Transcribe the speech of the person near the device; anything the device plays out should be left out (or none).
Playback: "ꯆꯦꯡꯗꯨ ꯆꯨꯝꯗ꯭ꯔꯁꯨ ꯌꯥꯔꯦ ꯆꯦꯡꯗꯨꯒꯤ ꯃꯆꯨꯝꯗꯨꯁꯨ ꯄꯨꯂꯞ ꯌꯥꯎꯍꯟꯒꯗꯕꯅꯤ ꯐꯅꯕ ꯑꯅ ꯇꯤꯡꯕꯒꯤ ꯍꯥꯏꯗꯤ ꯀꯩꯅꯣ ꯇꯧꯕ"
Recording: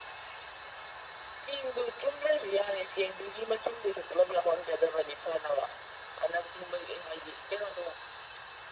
none